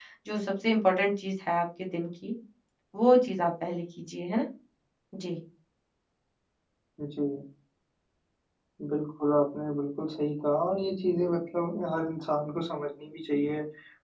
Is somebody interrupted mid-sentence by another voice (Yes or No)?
No